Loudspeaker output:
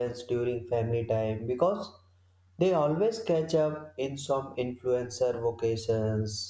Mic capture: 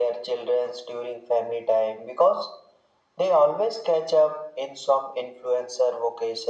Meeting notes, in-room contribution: none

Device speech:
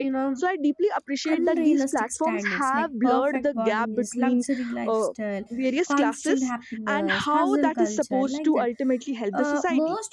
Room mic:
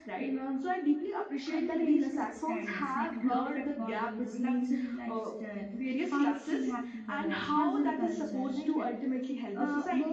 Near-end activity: none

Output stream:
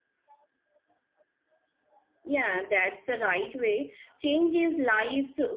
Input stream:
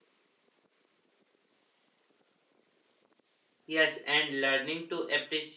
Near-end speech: present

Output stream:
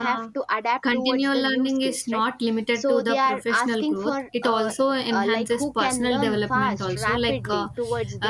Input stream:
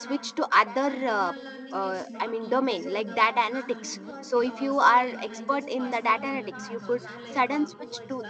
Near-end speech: present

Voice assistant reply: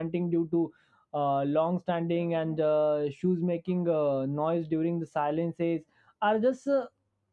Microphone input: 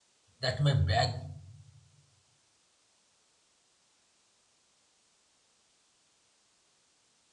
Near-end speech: present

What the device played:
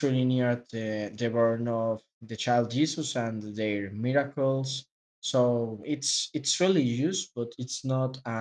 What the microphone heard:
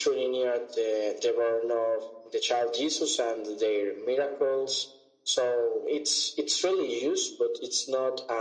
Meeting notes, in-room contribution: none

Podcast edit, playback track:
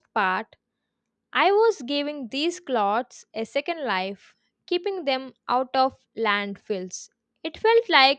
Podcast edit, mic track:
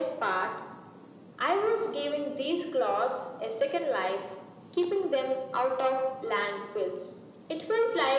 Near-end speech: none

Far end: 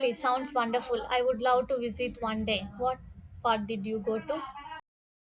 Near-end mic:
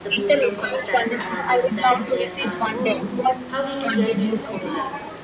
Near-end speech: present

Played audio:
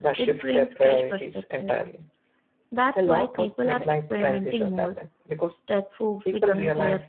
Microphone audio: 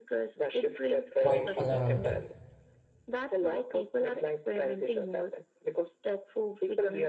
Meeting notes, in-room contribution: present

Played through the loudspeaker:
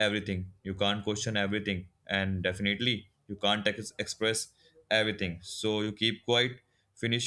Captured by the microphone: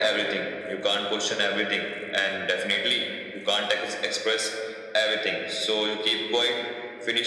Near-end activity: none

